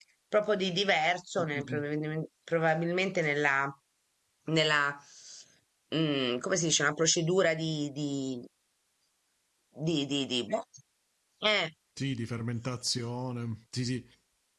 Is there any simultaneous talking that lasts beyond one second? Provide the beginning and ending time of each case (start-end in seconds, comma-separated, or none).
none